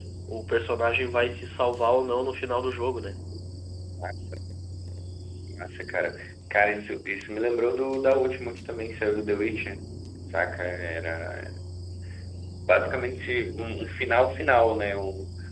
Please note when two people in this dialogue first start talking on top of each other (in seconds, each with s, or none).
none